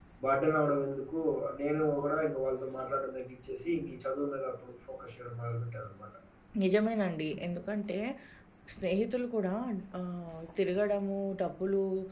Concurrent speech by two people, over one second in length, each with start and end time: none

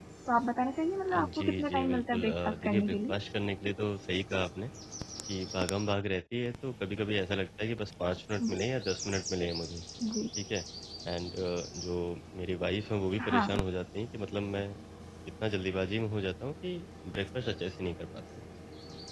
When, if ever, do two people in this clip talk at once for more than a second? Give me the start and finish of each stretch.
1.1-3.1

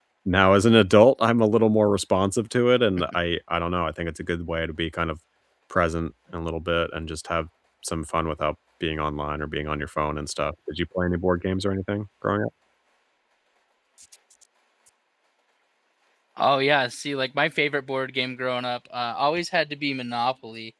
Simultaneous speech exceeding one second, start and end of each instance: none

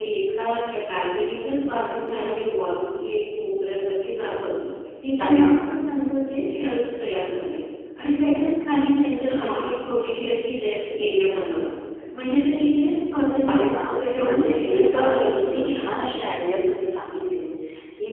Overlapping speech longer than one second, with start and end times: 14.2-16.1

